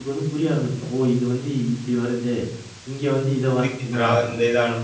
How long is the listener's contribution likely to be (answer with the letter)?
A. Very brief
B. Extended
B